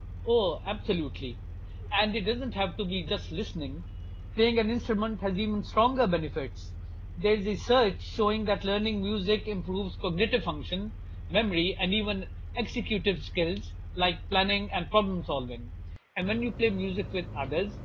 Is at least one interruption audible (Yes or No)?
No